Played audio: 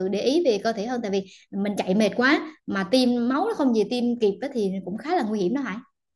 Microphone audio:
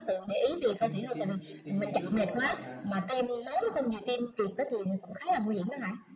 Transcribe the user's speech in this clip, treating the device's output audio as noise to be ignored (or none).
tim tim tim đi trước máu ở lại ha